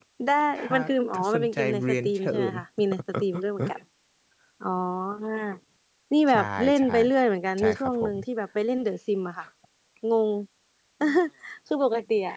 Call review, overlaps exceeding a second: present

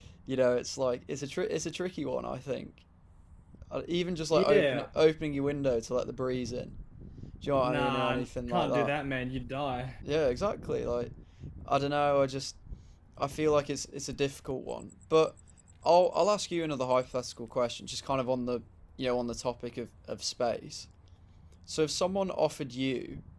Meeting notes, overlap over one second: present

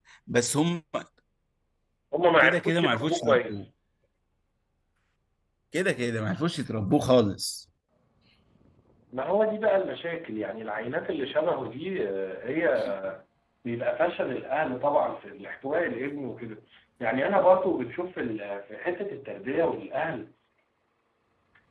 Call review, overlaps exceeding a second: present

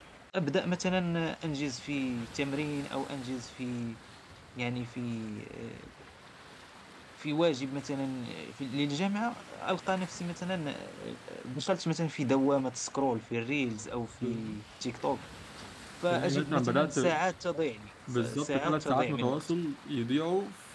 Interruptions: present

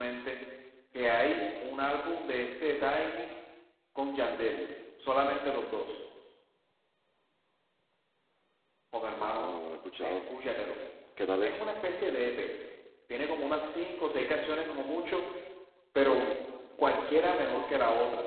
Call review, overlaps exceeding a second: none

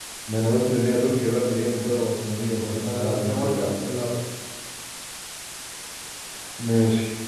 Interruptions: present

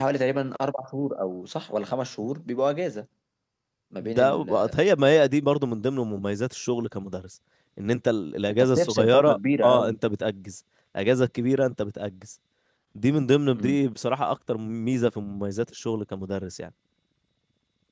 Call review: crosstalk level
present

